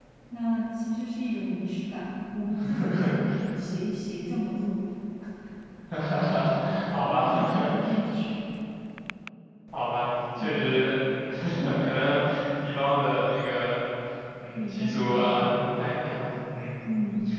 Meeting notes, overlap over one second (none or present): present